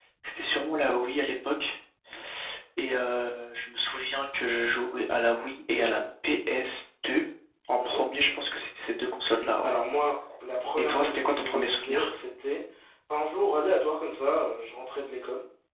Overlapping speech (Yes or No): Yes